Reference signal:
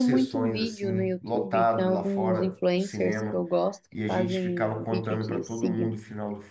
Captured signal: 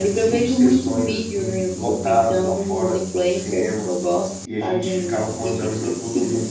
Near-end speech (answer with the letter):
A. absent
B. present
A